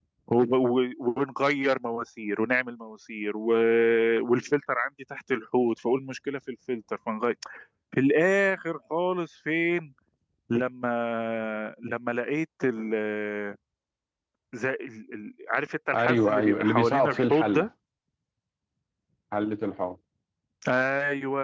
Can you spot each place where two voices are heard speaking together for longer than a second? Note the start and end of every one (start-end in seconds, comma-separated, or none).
15.9-17.7